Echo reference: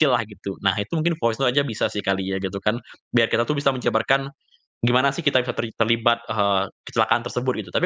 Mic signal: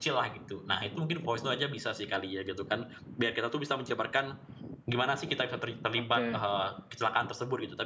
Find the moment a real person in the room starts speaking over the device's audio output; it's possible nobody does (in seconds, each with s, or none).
6.0 s